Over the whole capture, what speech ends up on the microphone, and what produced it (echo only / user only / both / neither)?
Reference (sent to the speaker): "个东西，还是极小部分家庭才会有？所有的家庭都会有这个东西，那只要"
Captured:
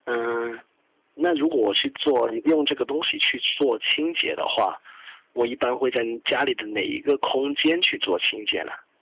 user only